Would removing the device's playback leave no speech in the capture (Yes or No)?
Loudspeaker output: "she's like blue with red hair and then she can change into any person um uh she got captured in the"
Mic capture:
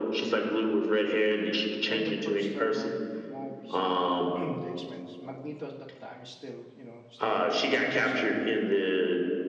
No